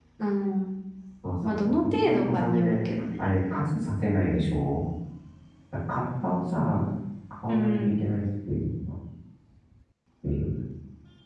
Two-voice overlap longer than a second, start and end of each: 1.4-2.8

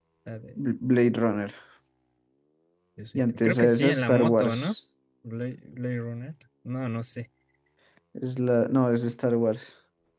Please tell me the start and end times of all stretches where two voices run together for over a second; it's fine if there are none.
3.1-4.7

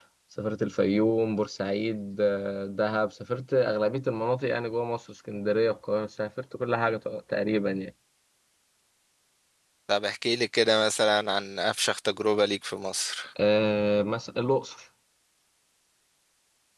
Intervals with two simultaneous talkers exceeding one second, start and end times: none

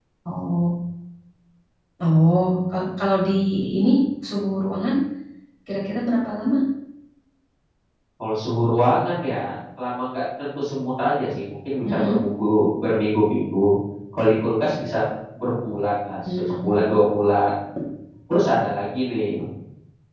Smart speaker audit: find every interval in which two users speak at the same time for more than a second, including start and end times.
none

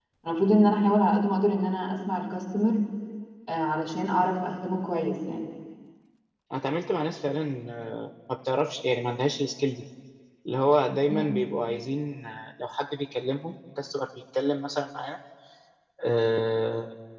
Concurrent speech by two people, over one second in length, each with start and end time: none

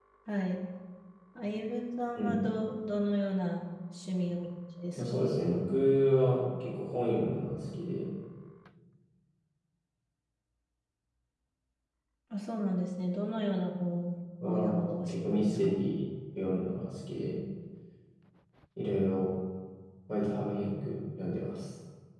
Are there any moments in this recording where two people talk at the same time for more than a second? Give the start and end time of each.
14.4-15.8

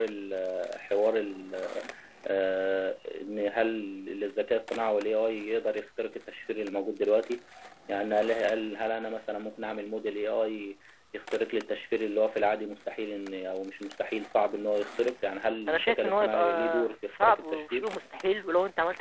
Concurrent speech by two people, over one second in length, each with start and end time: 15.7-17.9

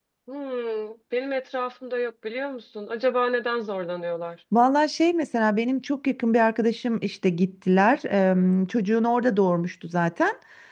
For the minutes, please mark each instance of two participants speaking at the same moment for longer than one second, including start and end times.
none

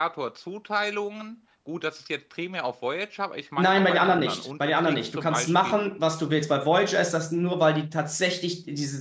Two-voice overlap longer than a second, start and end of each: 3.6-5.8

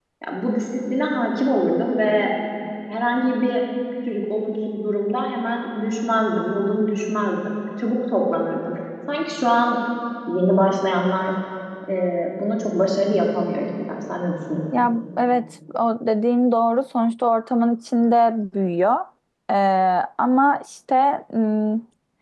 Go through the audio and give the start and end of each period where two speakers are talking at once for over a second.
none

